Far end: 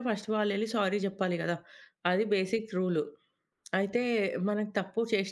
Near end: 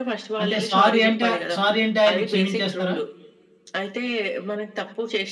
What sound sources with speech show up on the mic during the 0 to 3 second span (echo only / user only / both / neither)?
both